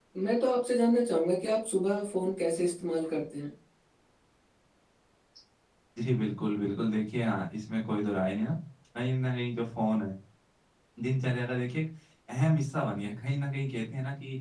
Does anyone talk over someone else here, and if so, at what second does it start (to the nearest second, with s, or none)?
none